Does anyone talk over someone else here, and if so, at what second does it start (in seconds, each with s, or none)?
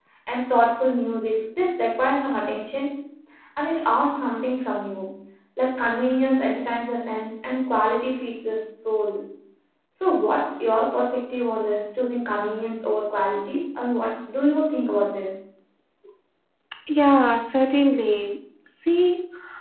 none